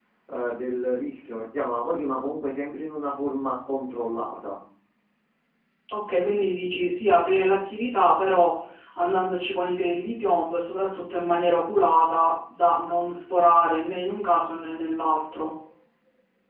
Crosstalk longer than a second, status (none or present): none